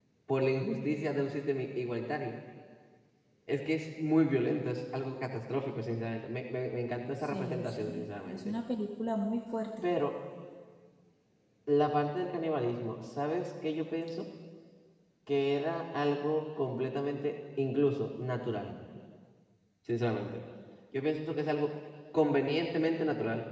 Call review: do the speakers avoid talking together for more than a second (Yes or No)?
No